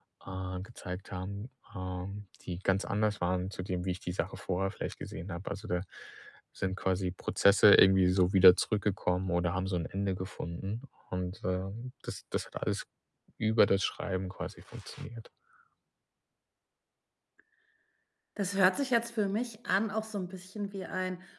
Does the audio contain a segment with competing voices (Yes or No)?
No